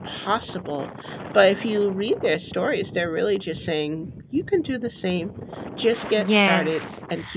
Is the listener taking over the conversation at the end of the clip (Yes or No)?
Yes